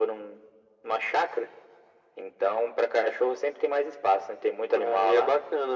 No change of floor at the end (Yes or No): No